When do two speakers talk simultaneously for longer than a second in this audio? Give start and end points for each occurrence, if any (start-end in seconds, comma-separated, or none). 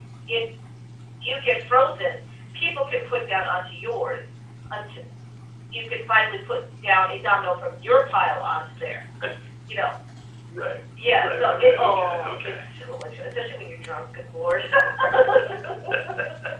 11.2-12.6